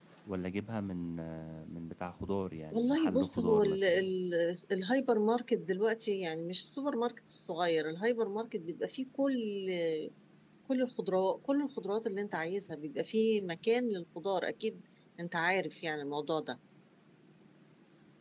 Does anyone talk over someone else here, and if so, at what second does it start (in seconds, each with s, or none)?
2.7 s